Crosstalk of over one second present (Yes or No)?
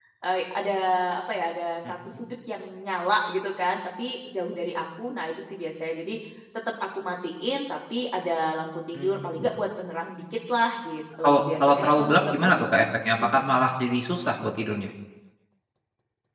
Yes